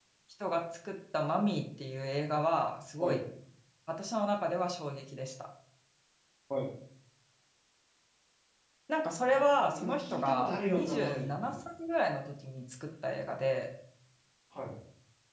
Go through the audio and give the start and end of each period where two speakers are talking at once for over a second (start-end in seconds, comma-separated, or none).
9.2-11.5